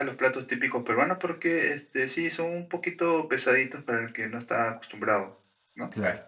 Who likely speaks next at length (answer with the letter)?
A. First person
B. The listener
A